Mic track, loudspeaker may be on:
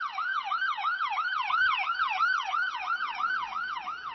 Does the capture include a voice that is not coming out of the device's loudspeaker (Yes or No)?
No